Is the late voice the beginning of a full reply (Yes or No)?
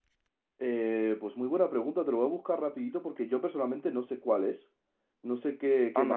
Yes